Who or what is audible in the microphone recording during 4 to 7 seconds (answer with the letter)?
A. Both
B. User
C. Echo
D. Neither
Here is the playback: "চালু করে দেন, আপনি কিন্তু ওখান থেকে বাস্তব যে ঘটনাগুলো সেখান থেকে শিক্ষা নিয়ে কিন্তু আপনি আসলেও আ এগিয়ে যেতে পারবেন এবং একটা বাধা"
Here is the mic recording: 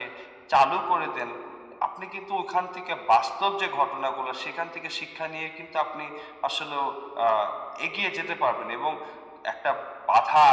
C